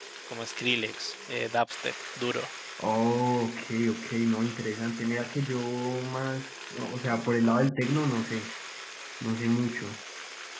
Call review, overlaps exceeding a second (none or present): none